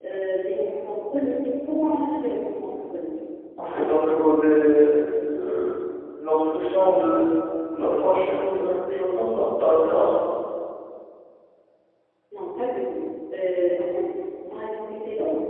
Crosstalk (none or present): none